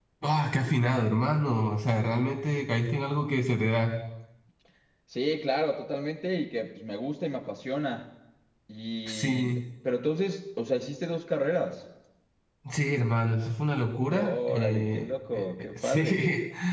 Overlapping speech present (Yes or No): Yes